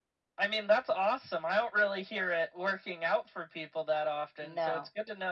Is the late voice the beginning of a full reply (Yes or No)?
No